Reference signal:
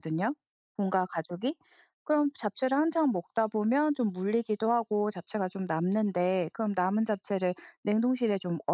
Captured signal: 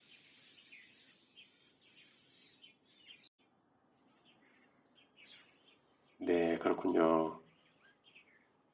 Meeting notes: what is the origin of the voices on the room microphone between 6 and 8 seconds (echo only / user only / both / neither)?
user only